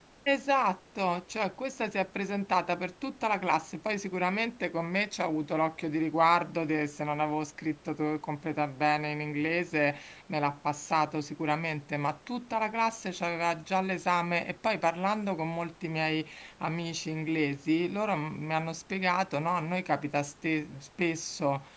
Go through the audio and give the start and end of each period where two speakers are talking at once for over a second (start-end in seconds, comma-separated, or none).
none